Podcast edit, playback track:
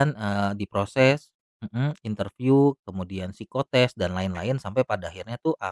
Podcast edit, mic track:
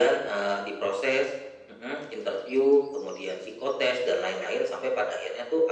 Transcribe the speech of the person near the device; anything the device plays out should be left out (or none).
none